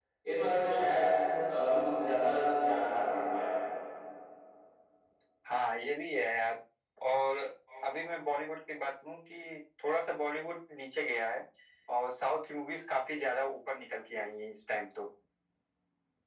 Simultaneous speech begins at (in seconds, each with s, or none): none